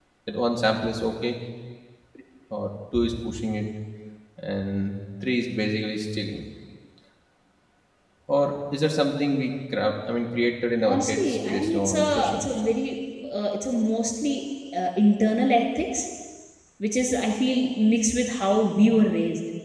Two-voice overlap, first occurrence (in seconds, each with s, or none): 10.8 s